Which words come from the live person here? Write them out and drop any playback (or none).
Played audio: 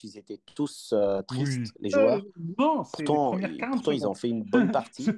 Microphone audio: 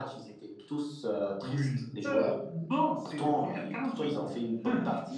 none